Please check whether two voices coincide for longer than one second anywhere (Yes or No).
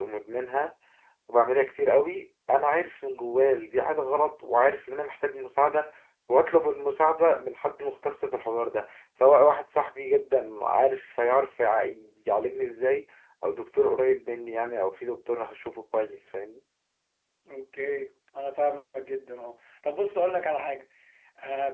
No